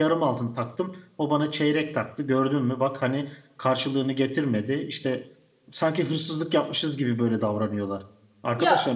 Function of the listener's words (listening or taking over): listening